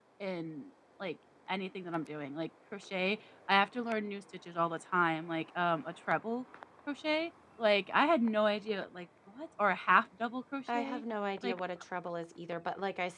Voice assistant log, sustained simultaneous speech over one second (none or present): none